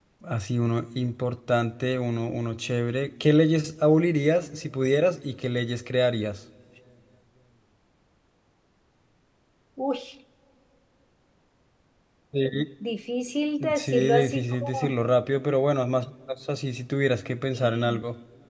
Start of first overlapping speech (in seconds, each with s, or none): 13.8 s